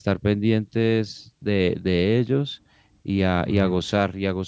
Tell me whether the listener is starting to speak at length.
No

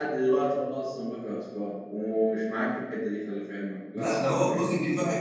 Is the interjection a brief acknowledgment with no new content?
No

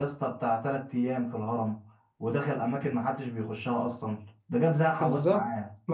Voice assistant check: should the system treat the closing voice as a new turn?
Yes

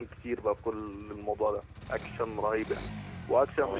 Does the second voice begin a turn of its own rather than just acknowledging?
No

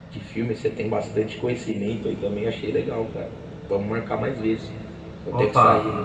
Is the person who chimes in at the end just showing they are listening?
Yes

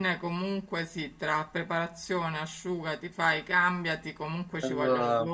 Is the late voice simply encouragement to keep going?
Yes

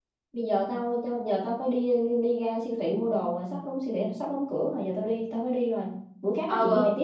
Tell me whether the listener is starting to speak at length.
Yes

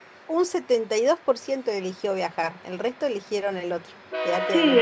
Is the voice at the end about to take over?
Yes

